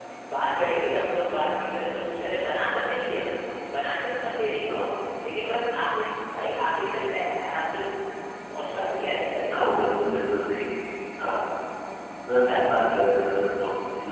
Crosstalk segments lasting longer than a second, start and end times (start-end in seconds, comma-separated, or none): none